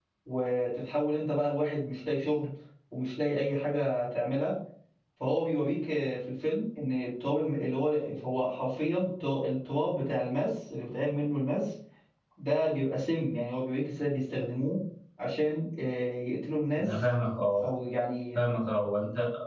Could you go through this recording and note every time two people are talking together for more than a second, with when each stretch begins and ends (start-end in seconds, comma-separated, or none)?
none